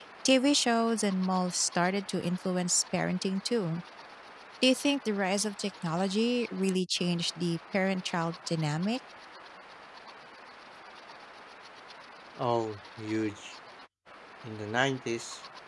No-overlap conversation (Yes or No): Yes